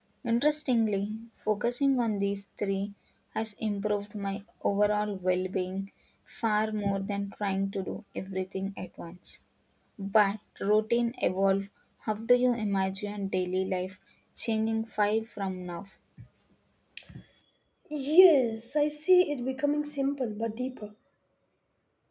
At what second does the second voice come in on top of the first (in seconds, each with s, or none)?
none